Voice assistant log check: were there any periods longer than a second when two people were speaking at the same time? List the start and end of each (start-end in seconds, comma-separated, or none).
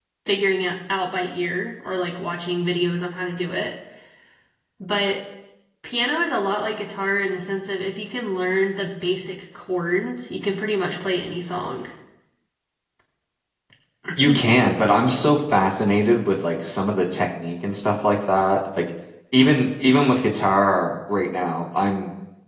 none